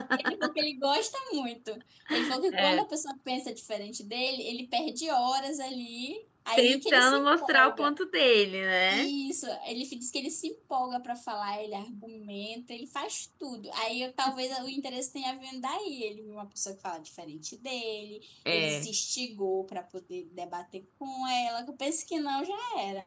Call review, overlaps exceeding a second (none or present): present